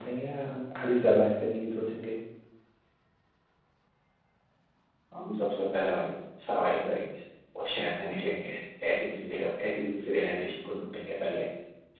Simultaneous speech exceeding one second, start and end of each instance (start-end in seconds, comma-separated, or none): none